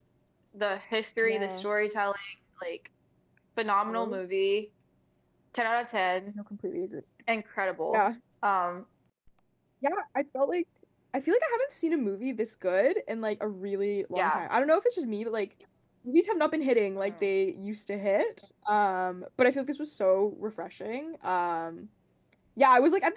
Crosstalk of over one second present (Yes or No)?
No